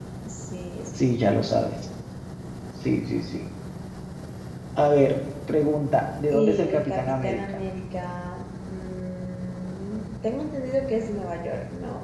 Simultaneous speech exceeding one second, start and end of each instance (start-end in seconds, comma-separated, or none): 6.3-7.6